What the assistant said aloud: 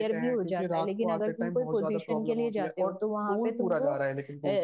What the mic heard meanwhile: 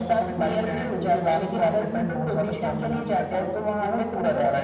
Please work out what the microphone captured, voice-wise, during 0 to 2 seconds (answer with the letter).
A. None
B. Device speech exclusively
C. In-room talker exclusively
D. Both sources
B